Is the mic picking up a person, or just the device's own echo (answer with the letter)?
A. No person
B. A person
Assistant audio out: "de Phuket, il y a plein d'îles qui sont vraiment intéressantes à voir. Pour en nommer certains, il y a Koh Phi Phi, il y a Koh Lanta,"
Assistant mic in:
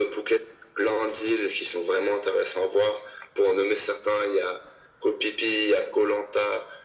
A